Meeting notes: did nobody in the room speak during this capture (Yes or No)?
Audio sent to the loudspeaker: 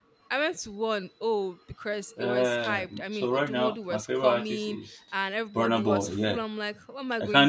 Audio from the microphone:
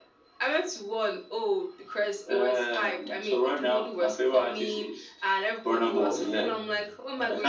No